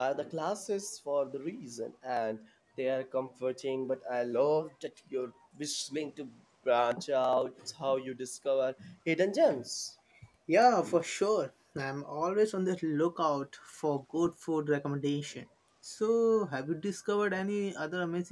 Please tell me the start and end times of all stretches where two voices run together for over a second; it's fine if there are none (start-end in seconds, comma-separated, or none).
none